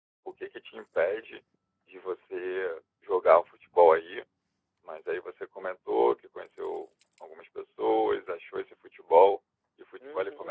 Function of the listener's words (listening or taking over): taking over